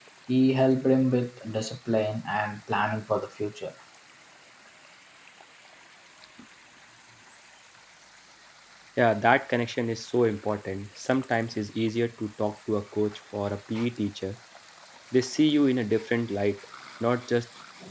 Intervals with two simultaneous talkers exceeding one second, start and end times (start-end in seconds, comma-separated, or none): none